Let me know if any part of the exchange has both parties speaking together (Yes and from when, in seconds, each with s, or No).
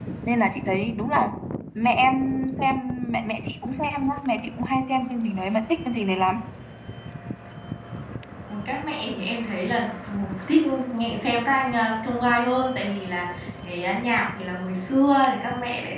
No